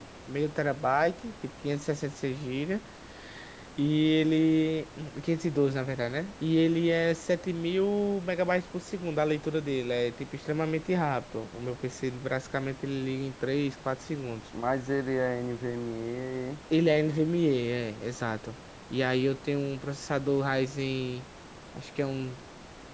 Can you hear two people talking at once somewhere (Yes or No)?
No